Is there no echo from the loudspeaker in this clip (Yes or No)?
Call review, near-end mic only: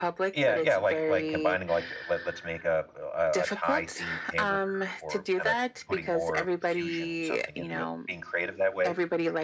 No